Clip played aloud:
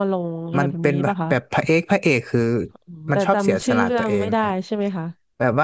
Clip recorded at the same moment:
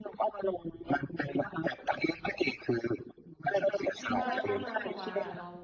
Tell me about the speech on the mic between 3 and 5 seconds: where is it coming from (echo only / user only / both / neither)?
both